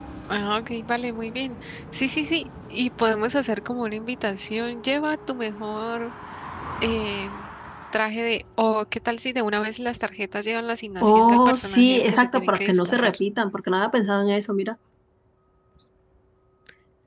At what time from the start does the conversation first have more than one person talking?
11.0 s

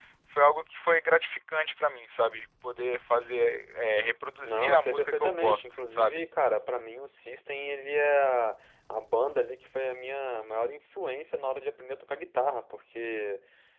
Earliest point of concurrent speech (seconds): 4.4 s

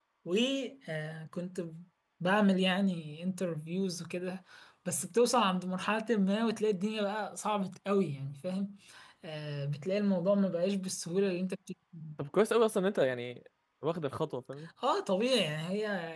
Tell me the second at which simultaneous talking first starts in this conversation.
none

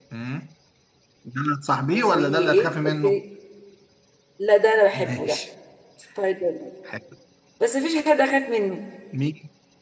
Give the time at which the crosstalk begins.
1.9 s

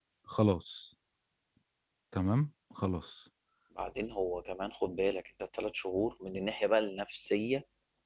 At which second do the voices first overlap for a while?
none

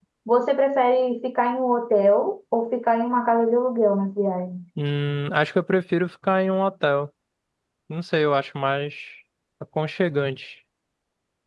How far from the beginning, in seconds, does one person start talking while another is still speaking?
none

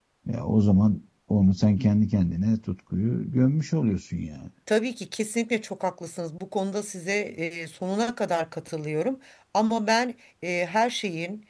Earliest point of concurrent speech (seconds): none

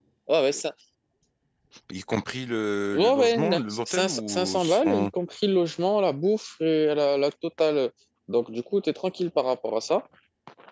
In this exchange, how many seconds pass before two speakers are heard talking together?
2.9 s

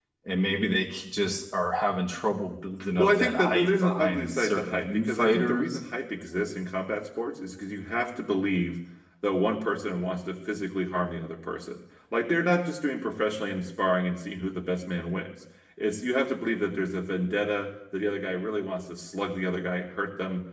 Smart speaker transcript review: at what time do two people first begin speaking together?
2.8 s

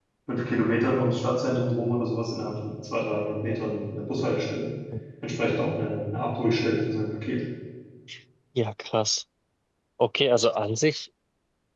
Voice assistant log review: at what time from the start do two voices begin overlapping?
none

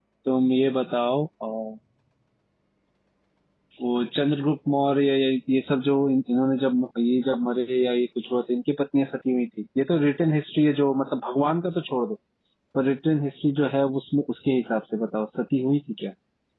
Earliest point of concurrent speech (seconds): none

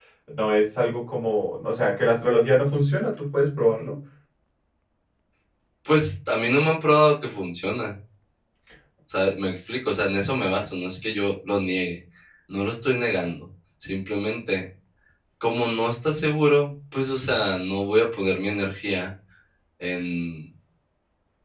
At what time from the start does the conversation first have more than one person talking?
none

